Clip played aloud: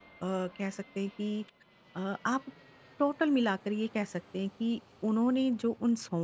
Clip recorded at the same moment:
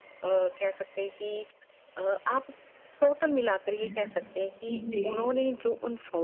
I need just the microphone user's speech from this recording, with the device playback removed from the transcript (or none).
हुँ, जी।